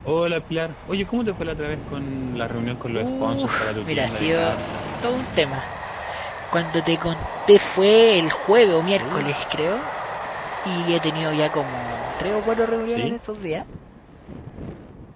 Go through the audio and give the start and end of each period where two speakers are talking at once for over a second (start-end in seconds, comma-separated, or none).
3.0-4.6